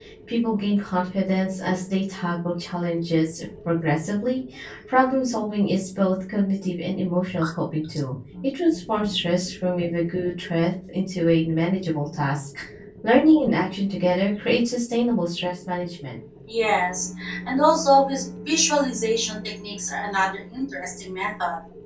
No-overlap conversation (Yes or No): Yes